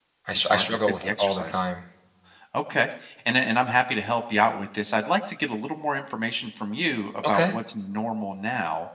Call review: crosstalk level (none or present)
present